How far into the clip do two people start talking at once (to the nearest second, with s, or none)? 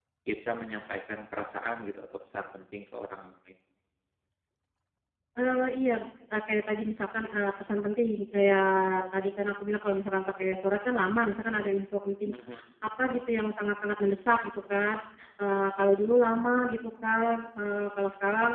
none